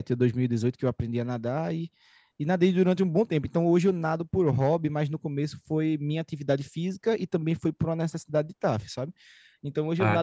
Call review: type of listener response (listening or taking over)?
listening